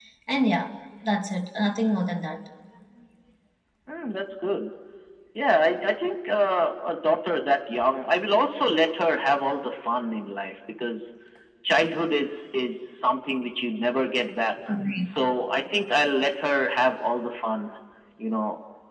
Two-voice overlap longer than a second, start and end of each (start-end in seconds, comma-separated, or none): none